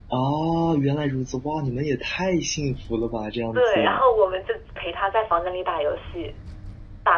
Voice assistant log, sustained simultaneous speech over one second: none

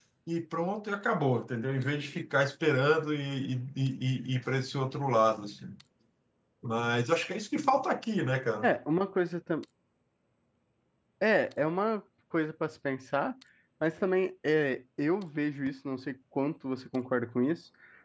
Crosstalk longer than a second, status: none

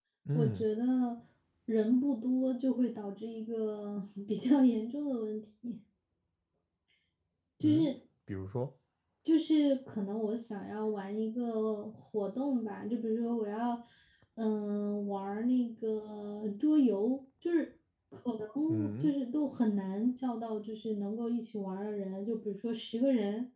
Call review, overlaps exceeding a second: none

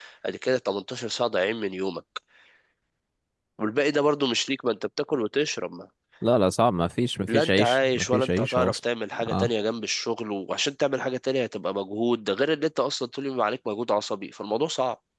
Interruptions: present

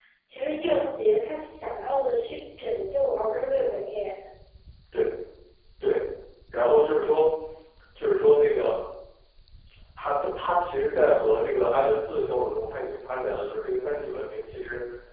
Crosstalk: none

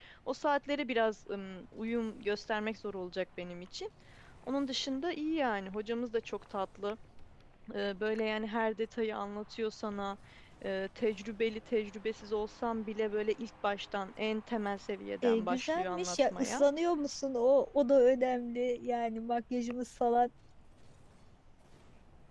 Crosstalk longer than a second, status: present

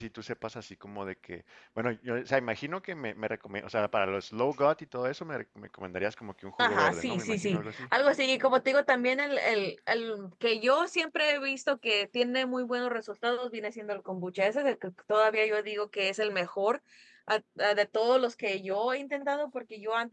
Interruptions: present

